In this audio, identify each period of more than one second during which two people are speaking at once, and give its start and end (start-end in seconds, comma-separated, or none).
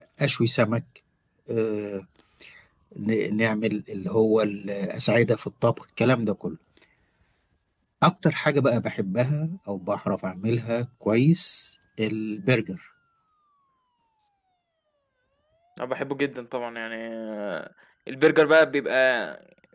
none